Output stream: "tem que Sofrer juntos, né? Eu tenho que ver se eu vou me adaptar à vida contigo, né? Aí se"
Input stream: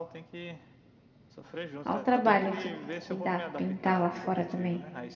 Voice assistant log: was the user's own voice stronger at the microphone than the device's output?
Yes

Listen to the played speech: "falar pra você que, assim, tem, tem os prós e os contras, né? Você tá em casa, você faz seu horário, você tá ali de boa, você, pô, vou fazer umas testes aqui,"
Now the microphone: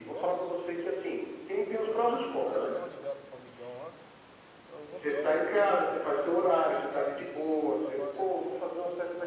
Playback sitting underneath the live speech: No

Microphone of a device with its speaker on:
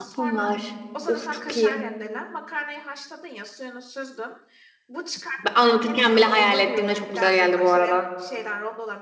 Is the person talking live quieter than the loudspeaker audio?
No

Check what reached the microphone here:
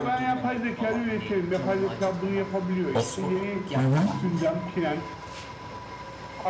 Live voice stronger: Yes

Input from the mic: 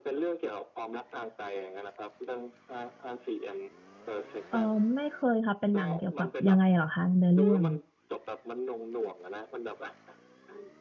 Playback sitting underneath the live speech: Yes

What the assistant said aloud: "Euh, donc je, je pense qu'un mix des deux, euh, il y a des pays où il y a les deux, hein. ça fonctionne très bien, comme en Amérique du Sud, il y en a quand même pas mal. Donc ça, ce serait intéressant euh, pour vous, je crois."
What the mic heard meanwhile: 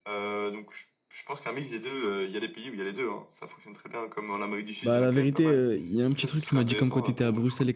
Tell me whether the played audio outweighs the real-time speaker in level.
No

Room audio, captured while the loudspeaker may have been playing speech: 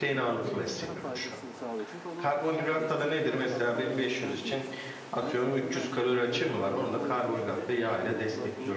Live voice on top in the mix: Yes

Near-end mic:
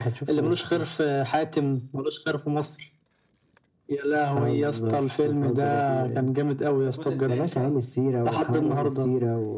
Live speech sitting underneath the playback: Yes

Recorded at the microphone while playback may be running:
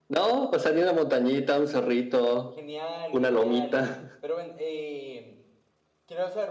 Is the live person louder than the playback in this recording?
No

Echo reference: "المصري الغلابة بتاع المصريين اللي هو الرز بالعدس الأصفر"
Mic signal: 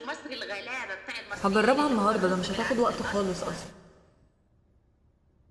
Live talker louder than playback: Yes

